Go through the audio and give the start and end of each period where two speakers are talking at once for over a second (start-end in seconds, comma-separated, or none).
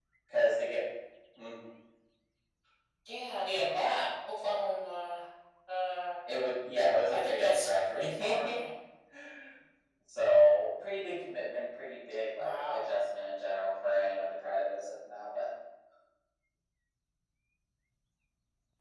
7.1-8.6